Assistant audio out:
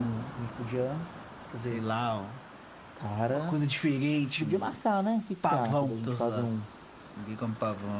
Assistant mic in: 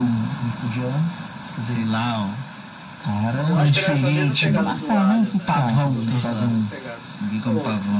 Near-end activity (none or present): present